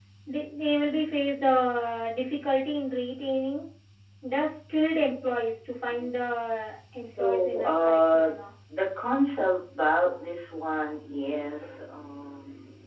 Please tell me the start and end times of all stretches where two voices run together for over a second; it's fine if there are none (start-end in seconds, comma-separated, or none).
7.0-8.3